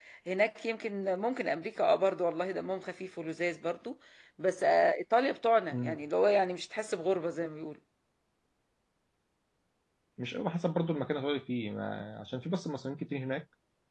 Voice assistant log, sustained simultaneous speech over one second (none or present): none